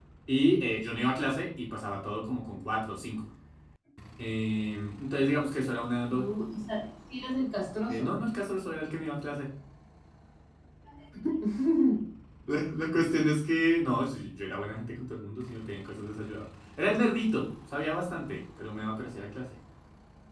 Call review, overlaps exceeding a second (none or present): none